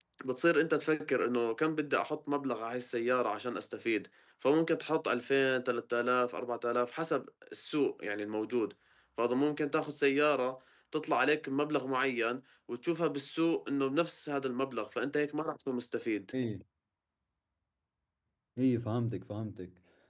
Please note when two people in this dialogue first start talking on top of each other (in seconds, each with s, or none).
none